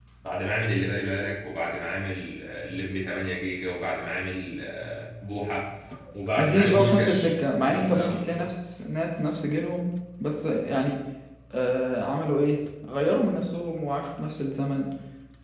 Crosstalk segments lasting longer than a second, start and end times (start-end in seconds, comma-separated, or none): 6.4-8.5